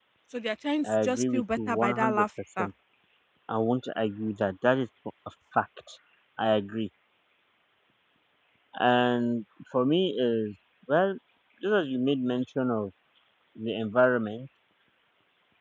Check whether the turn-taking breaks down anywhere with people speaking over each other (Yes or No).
Yes